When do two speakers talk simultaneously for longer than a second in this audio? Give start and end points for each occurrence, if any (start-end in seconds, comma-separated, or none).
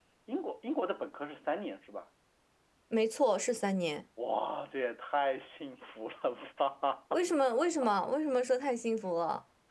none